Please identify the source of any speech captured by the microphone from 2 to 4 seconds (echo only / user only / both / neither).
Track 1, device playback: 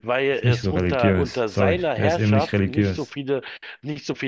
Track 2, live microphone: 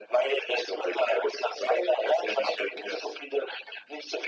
echo only